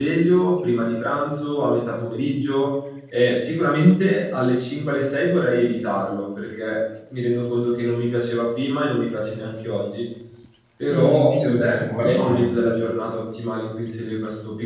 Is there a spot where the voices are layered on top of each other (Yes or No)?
Yes